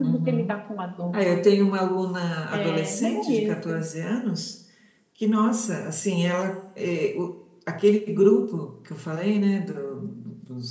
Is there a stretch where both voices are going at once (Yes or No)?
Yes